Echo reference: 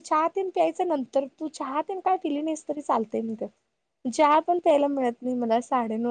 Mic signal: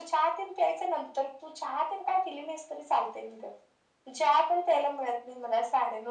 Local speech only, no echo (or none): none